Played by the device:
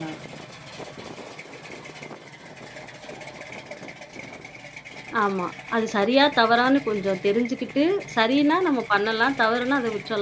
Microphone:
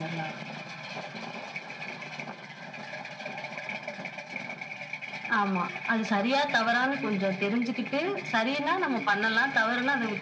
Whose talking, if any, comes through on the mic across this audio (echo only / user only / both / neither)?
echo only